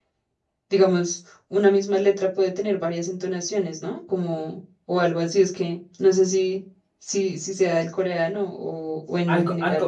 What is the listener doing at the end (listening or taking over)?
taking over